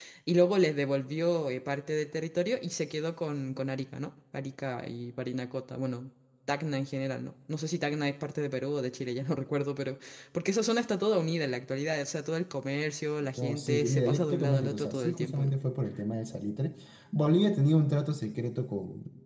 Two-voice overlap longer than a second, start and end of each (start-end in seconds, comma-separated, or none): 13.4-15.5